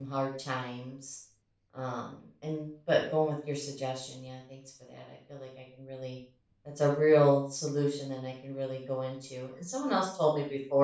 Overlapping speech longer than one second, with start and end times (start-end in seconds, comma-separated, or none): none